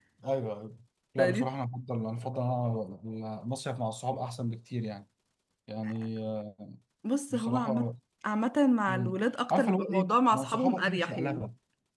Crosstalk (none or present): present